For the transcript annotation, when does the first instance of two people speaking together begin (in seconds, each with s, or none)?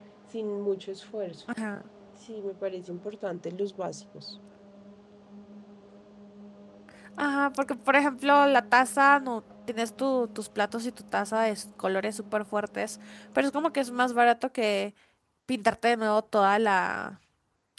none